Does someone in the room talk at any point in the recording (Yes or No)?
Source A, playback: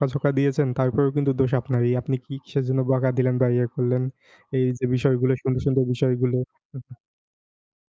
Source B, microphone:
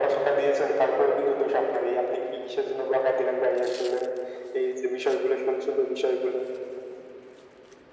No